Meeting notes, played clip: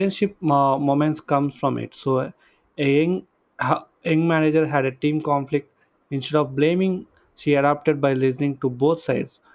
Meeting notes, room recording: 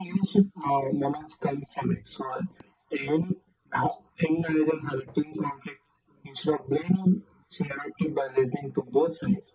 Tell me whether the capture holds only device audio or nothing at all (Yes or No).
Yes